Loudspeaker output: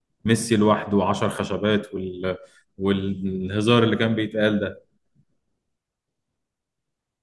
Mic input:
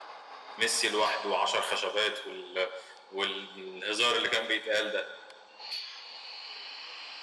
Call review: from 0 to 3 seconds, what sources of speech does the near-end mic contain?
echo only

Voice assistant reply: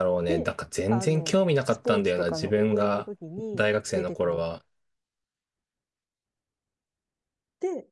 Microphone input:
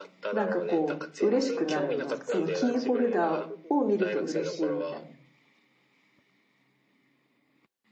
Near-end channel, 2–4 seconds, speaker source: both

